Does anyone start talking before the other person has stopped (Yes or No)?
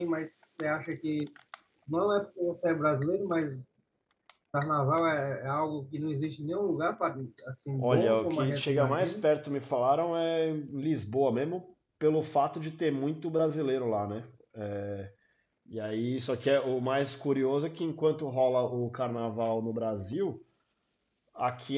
Yes